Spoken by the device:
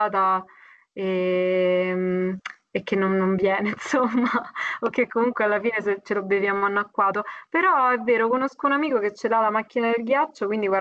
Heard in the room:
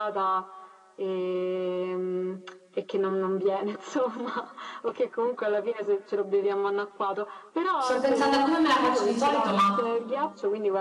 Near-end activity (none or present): present